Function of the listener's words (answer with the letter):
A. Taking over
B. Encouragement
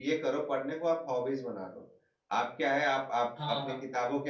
B